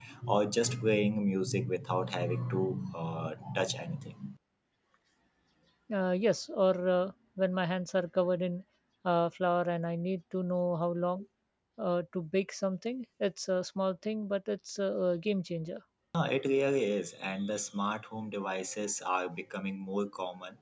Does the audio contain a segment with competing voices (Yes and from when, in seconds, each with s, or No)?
No